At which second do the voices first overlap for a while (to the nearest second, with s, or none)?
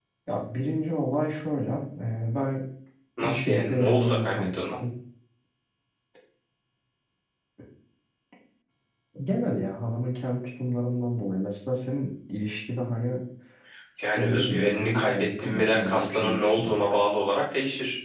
3 s